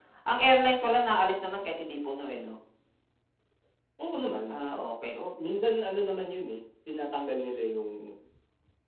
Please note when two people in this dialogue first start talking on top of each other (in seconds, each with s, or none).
none